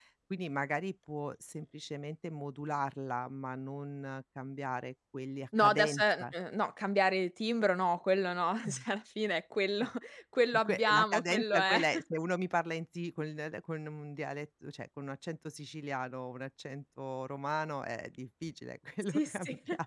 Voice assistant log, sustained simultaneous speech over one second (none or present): present